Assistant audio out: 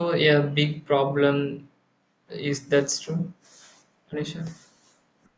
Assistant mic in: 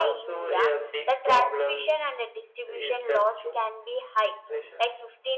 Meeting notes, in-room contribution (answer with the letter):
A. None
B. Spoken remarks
B